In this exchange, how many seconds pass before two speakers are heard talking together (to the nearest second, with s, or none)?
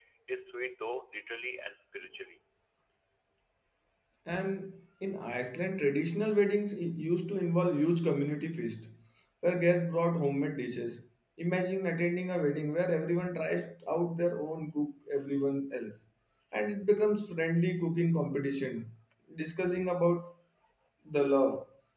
none